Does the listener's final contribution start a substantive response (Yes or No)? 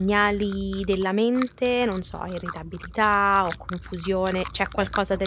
No